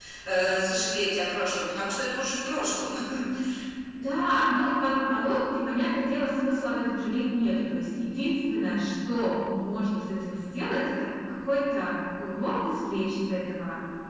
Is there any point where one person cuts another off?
No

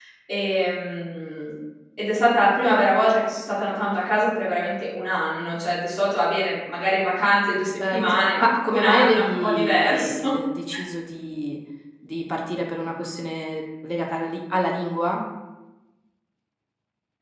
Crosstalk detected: Yes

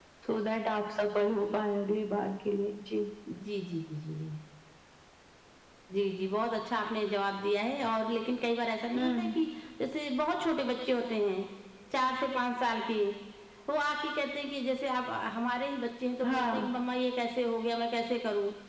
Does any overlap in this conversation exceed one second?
No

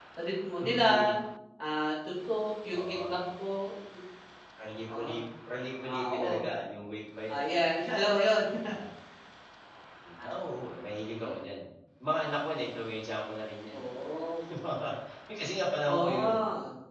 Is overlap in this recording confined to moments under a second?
Yes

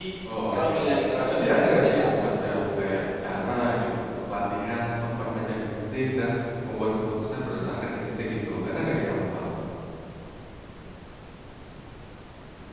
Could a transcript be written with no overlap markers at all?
No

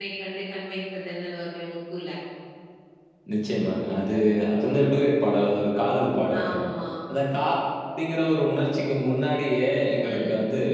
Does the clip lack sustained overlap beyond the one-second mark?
Yes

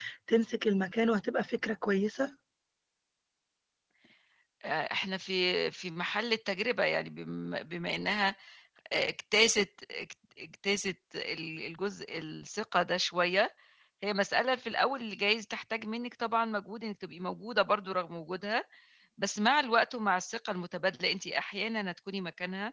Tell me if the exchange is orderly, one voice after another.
Yes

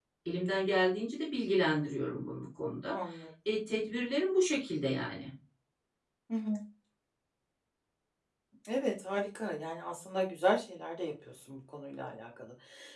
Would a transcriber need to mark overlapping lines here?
No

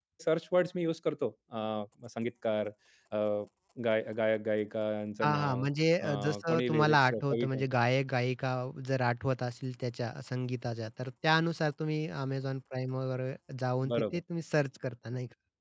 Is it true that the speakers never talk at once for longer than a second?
No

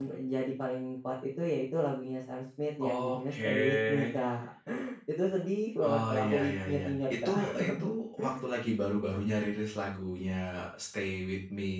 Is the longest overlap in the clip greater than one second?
Yes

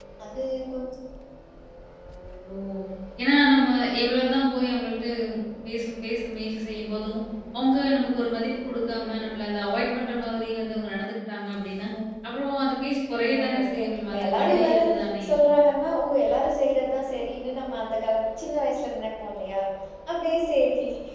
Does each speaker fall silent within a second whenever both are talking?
No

